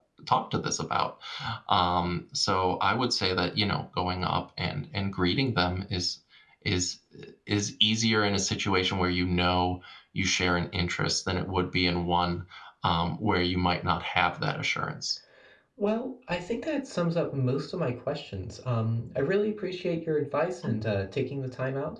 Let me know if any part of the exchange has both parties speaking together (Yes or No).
No